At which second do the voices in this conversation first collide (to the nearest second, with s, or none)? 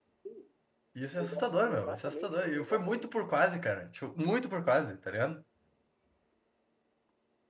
1 s